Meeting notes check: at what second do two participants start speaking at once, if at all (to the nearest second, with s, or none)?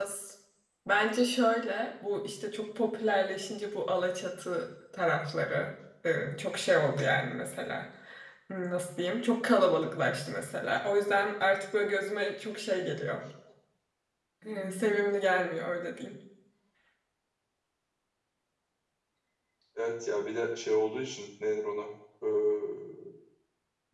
none